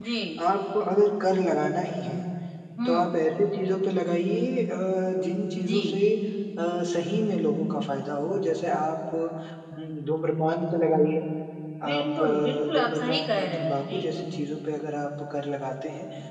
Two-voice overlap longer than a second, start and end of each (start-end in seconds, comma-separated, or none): 11.9-14.0